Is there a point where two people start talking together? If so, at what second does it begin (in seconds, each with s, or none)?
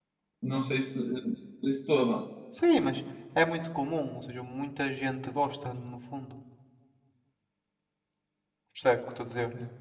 none